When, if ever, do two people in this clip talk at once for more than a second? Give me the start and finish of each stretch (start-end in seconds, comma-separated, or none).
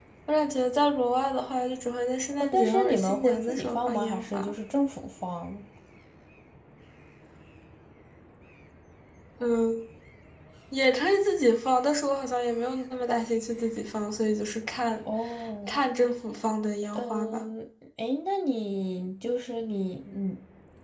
2.3-4.5